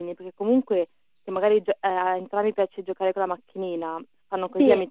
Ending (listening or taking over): listening